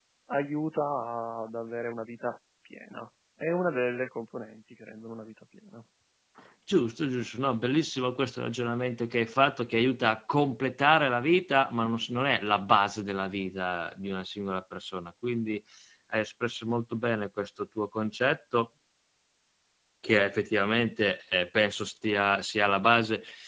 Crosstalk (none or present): none